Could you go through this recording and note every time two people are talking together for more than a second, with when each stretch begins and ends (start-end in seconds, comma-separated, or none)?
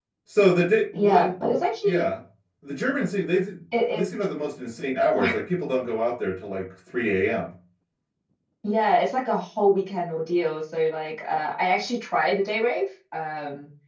none